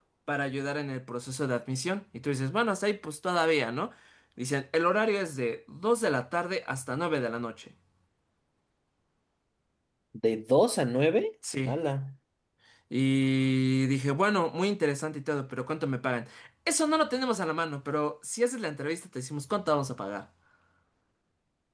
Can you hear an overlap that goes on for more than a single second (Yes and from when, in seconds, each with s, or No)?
No